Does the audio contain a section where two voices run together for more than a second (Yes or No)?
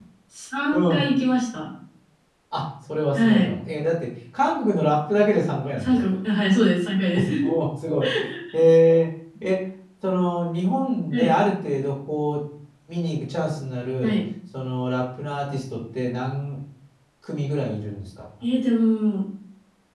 No